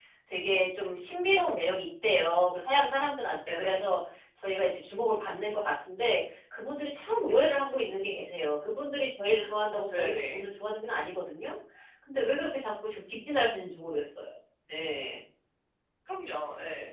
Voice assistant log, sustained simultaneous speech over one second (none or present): none